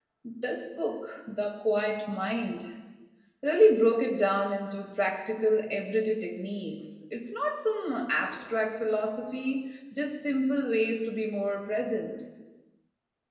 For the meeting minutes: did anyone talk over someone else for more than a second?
No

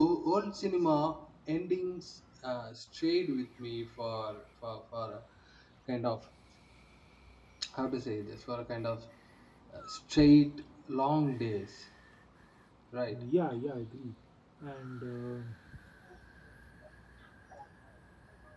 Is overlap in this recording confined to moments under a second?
Yes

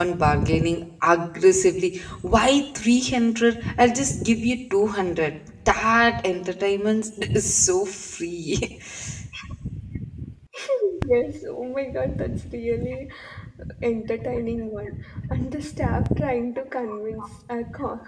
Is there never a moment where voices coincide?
Yes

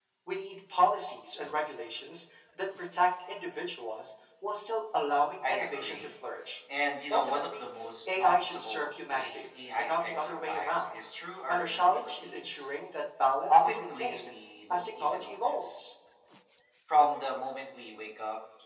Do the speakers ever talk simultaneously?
Yes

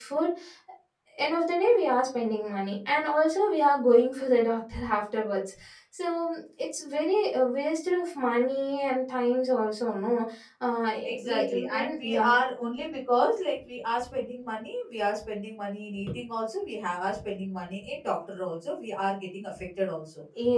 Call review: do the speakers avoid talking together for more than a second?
No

